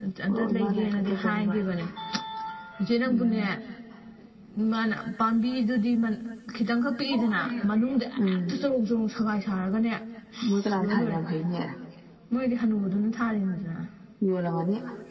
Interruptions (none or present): present